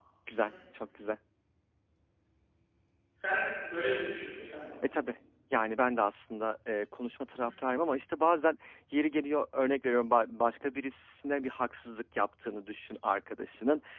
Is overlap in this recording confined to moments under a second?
Yes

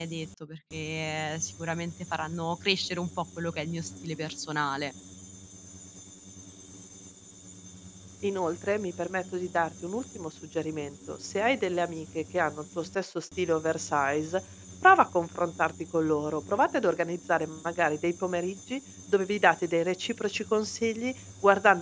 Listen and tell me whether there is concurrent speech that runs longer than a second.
No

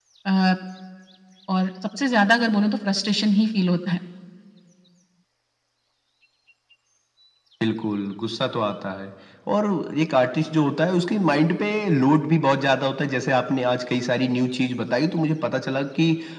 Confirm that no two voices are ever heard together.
Yes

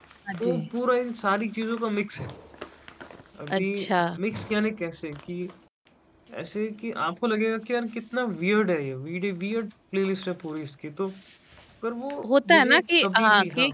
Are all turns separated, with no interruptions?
No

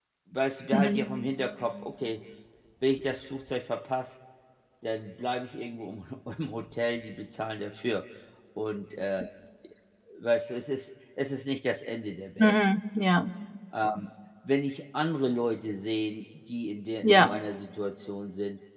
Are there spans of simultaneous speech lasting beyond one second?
No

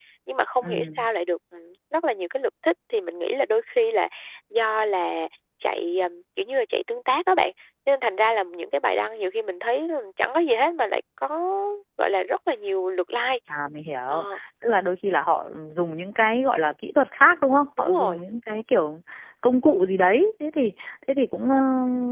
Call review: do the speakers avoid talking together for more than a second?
Yes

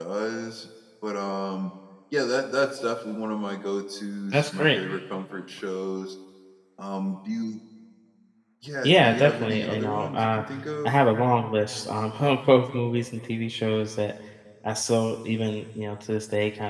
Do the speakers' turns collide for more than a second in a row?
Yes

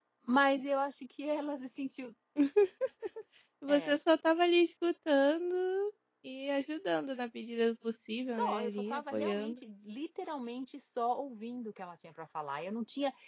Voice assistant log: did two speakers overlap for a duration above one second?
Yes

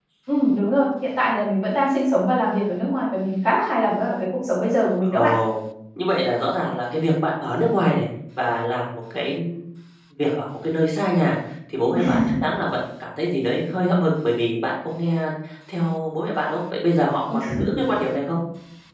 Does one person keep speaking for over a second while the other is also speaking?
No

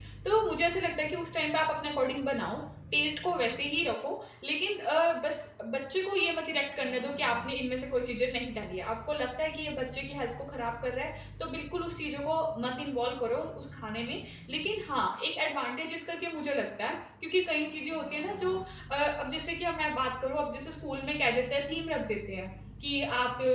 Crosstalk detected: No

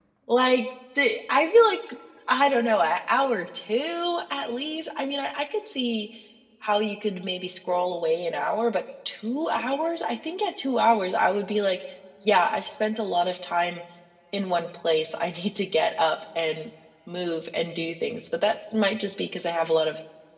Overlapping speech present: No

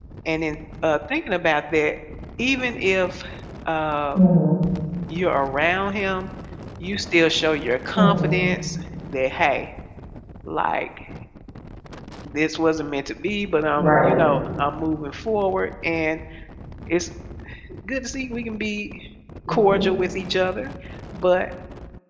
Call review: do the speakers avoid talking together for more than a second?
Yes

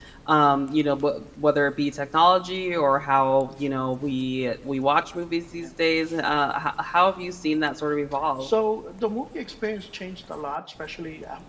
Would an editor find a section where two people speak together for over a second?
No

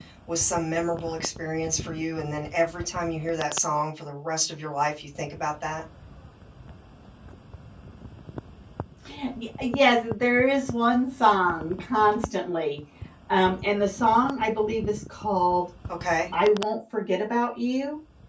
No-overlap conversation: Yes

